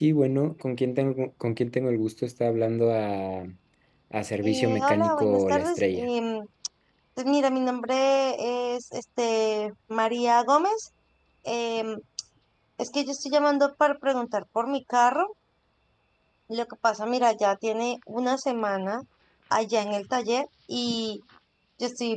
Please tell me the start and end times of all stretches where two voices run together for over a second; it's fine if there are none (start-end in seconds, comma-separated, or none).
4.4-6.1